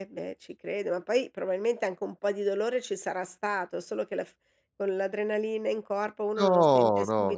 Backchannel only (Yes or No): No